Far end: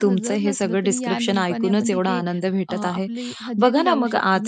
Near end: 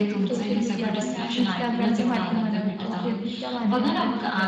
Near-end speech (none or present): present